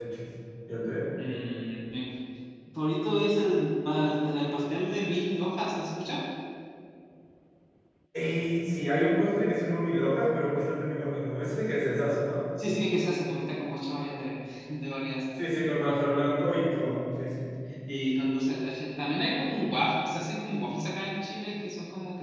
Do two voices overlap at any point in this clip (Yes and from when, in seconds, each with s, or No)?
No